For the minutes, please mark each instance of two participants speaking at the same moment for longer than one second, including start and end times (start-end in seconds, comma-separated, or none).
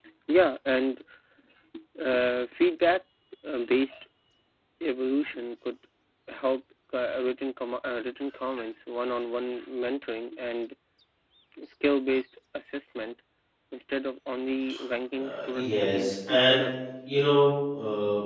15.2-16.6